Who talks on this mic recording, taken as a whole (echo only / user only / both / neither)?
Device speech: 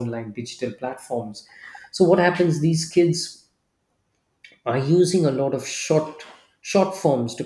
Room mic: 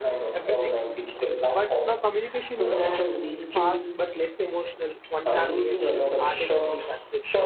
both